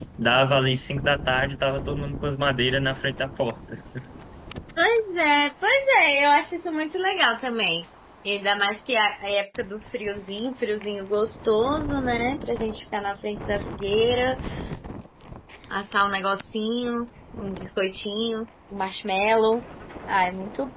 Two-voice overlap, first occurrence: none

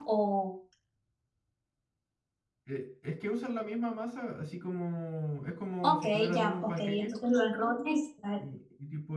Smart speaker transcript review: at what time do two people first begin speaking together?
5.8 s

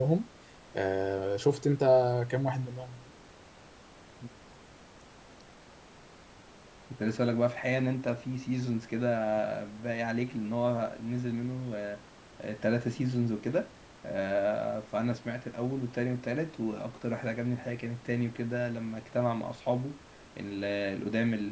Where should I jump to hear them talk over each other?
none

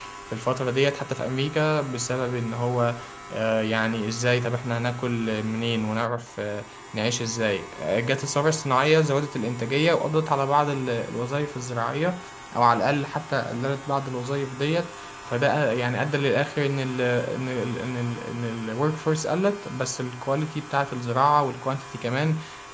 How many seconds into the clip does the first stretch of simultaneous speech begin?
none

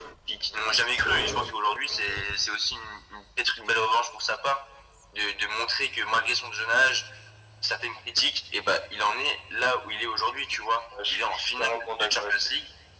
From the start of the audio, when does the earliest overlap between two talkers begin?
10.9 s

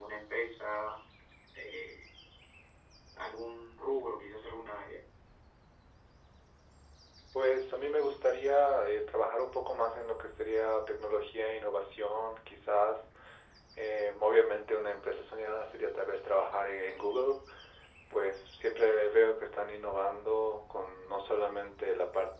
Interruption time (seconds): none

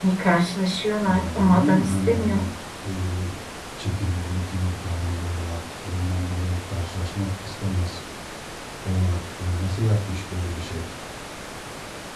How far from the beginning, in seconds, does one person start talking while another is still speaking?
1.0 s

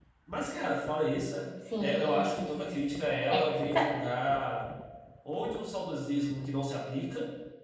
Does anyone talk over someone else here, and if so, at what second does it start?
1.7 s

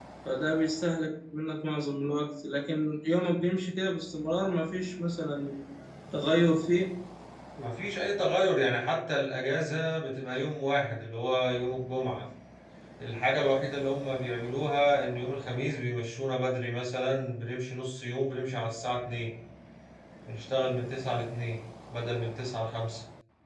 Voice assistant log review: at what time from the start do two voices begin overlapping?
none

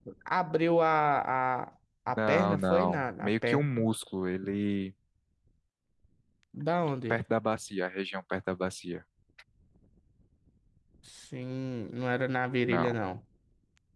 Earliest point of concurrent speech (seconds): 2.2 s

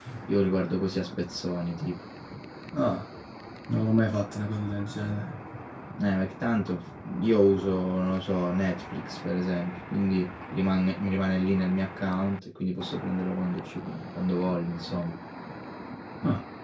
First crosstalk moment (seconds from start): none

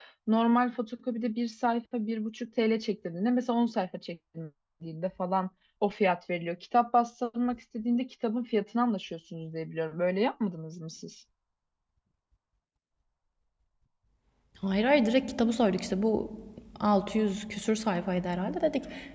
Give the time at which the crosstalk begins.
none

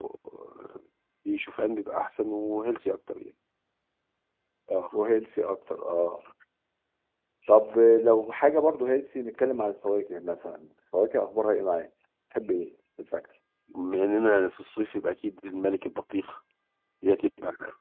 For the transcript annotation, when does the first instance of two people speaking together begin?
none

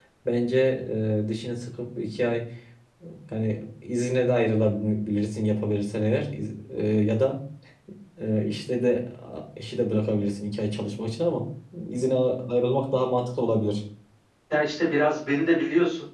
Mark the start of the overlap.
none

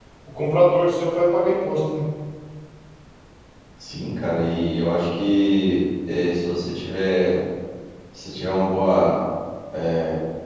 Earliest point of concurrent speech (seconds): none

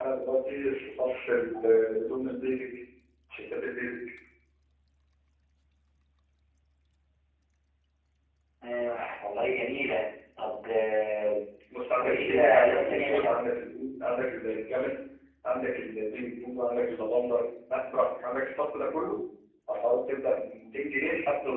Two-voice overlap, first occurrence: 12.0 s

